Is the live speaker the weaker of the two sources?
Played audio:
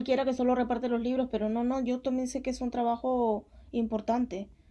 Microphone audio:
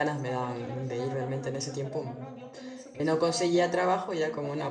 No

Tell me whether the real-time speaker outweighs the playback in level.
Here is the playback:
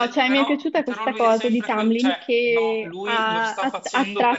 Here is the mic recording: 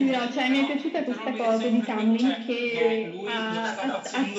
No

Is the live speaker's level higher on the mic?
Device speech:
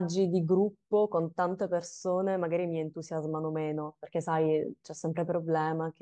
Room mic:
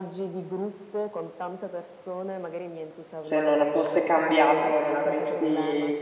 Yes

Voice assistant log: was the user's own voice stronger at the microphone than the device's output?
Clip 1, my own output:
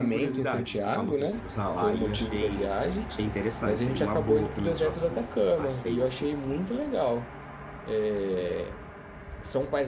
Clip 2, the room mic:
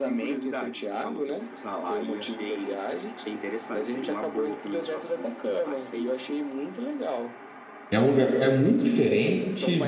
Yes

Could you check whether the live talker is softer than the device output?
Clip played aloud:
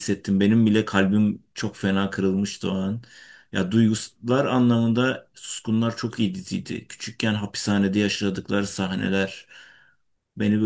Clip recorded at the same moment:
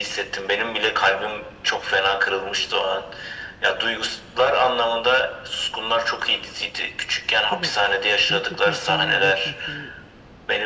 Yes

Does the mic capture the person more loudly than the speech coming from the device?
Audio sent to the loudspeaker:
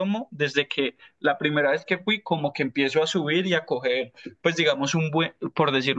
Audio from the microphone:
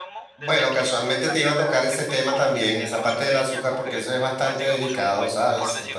Yes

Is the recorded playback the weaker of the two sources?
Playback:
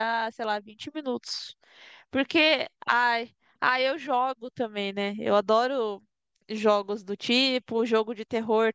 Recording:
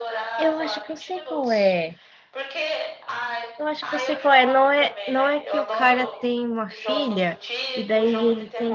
Yes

